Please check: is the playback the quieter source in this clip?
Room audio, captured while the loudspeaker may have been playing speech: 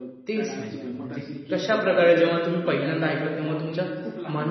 Yes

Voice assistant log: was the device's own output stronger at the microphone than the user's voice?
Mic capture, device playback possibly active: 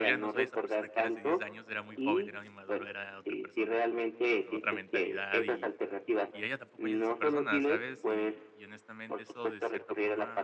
Yes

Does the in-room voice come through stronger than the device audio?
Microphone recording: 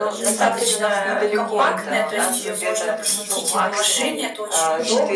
No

